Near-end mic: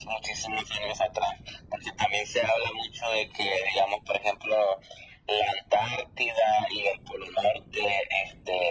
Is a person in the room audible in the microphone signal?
No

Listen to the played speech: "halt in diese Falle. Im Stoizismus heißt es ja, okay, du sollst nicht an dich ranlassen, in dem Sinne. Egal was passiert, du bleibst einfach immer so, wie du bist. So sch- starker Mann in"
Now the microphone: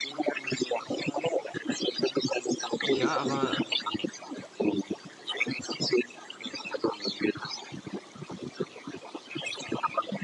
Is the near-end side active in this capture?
Yes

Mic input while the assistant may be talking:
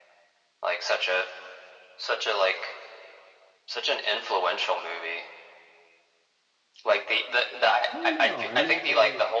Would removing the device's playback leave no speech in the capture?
No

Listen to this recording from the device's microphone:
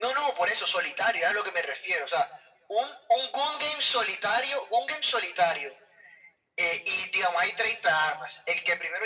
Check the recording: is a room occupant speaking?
No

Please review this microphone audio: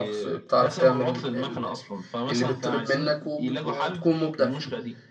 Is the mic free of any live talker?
No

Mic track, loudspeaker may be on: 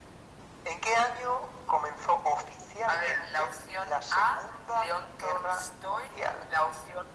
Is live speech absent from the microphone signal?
Yes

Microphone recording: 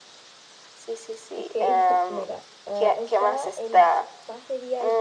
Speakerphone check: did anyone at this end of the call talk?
Yes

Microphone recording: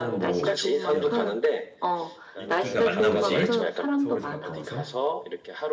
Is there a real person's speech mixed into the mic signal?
Yes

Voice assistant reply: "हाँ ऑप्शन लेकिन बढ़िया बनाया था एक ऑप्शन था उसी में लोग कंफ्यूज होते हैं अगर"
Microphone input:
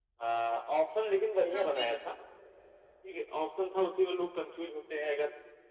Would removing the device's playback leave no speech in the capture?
No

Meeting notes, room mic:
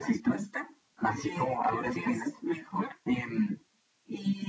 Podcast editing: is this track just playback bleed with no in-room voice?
Yes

